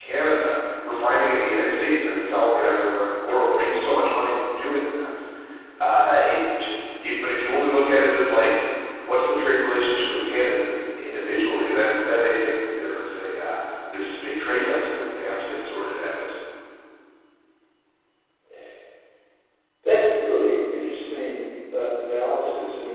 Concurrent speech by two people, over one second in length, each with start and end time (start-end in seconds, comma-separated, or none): none